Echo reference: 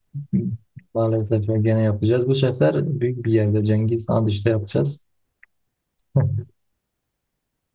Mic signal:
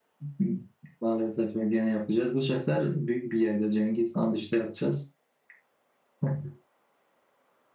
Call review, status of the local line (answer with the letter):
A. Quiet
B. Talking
A